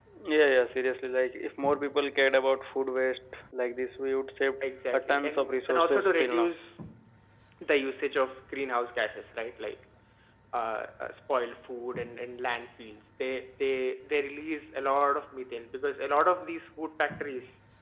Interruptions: present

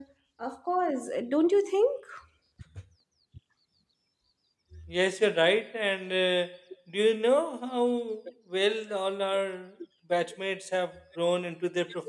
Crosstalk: none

